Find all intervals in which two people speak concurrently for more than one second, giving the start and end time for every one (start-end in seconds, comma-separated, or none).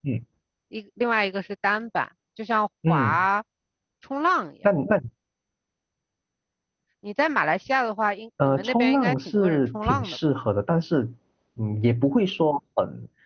8.4-10.2